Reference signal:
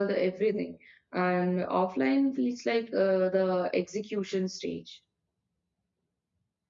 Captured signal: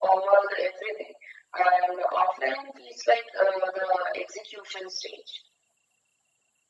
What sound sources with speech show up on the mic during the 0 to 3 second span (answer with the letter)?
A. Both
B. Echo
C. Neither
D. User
B